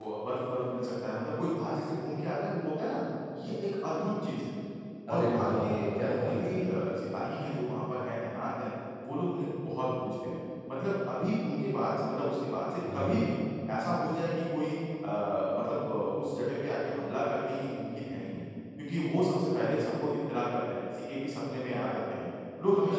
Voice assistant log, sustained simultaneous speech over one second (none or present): present